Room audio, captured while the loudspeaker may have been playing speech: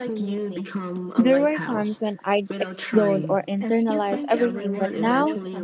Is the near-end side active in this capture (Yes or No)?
Yes